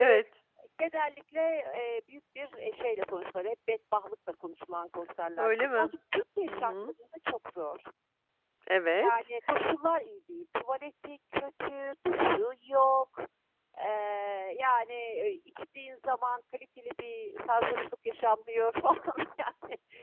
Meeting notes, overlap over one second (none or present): none